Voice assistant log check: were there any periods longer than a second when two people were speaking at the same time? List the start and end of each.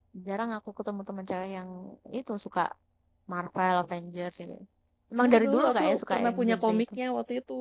5.2-6.8

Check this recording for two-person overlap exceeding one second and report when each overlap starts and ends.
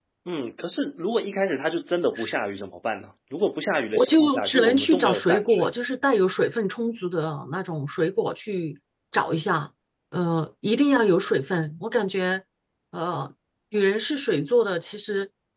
3.9-5.7

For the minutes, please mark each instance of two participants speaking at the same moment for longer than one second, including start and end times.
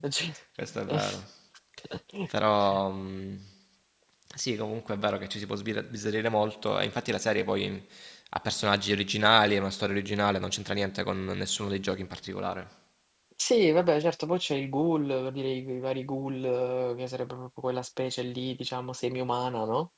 none

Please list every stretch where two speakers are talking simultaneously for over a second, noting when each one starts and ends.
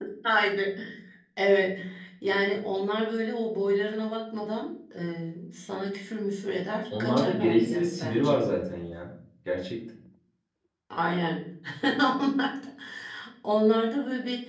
7.0-8.4

